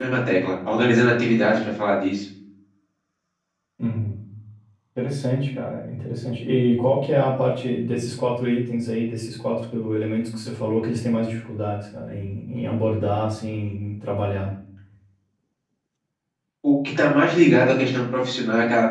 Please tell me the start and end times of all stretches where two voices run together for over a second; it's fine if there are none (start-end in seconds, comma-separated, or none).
none